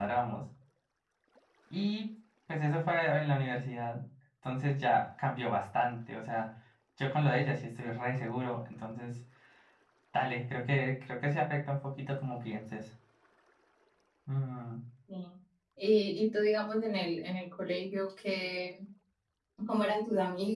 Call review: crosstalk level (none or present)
none